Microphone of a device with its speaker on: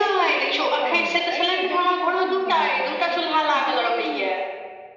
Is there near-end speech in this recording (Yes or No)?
Yes